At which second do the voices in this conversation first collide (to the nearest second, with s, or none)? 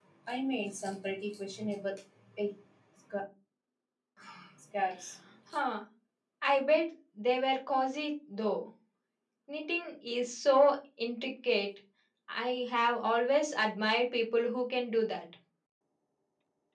none